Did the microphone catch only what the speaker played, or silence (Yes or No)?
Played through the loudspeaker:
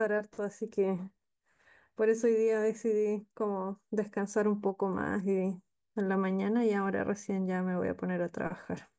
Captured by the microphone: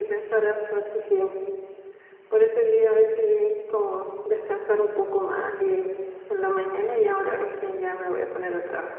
Yes